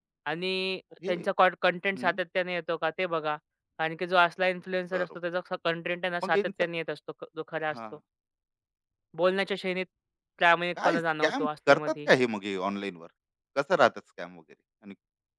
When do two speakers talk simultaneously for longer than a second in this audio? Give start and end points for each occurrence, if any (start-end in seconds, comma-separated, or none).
10.8-12.1